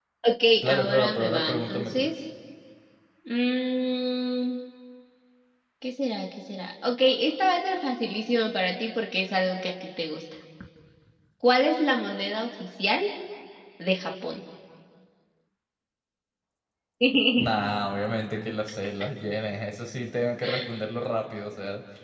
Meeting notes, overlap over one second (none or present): present